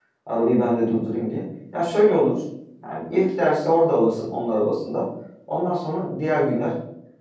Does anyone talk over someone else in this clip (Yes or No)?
No